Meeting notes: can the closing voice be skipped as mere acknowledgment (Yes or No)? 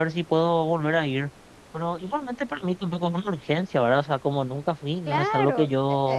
No